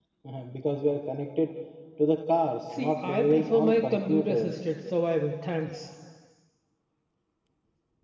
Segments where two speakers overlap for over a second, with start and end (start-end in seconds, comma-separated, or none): 2.8-4.5